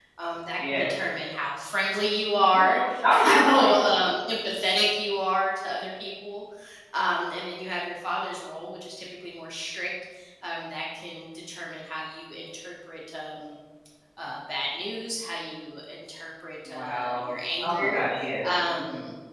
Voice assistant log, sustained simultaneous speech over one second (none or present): present